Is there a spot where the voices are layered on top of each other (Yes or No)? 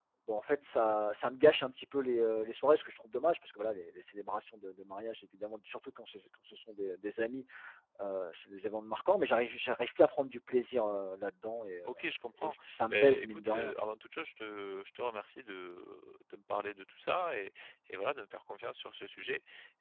Yes